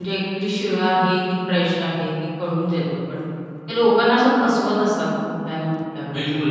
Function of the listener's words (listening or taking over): taking over